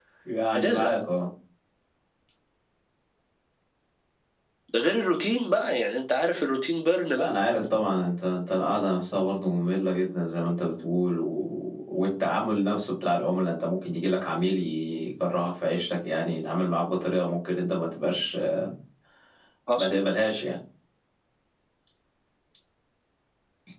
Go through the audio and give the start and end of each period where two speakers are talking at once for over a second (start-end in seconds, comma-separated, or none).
none